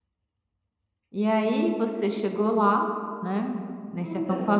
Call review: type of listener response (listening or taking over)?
listening